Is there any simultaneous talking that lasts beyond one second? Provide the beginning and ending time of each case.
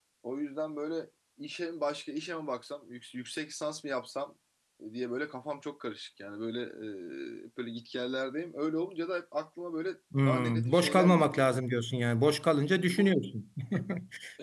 10.2-11.5

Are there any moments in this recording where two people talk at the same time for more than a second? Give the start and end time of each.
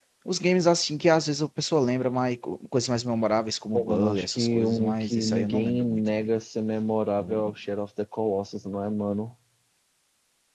3.7-6.3

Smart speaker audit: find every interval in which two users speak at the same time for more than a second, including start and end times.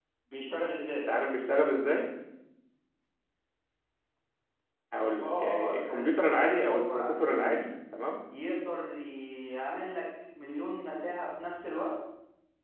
5.2-7.7

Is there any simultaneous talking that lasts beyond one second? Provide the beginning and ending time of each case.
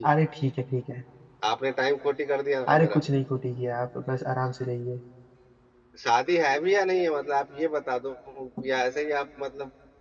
none

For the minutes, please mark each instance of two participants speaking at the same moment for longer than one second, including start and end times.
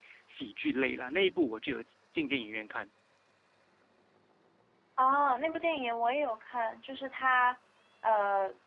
none

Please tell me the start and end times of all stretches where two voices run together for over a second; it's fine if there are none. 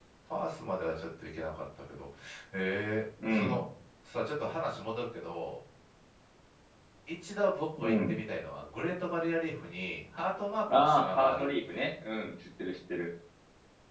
10.7-11.9

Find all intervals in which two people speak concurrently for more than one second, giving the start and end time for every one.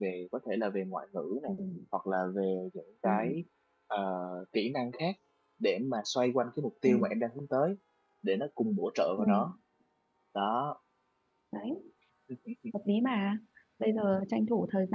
none

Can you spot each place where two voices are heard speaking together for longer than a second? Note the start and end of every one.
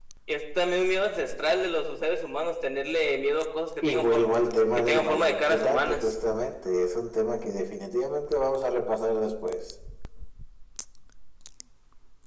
4.8-6.1

